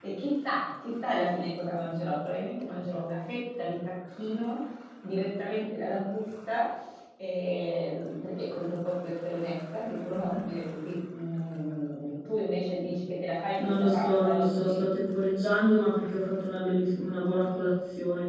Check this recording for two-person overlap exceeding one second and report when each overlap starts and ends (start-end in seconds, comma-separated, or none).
13.6-14.8